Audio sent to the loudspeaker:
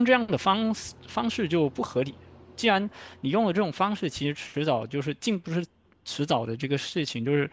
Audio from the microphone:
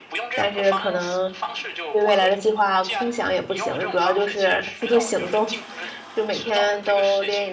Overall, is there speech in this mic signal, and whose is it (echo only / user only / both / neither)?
both